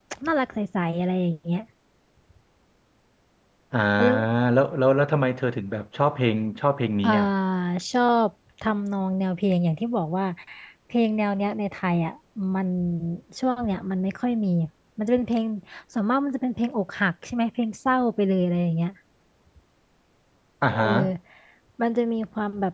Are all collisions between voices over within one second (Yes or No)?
Yes